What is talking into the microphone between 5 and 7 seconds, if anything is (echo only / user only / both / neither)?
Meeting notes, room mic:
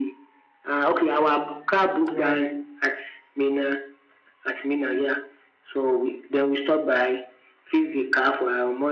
echo only